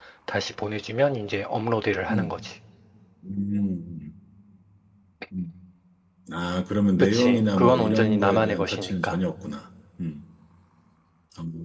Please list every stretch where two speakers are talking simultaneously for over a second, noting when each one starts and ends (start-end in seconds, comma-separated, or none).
7.1-9.2